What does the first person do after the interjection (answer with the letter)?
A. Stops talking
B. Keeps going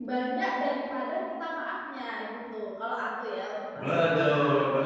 A